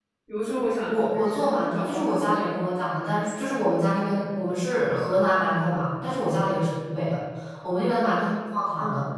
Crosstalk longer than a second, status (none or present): present